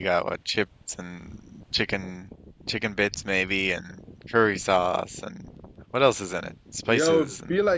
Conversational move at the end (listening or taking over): taking over